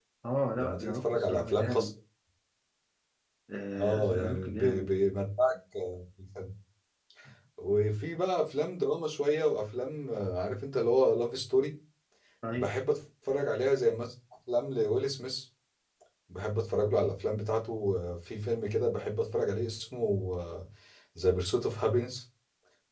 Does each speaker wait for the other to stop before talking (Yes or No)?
No